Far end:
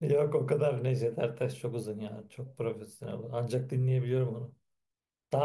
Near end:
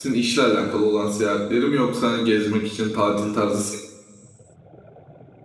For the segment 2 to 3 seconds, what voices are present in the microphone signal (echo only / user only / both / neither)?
user only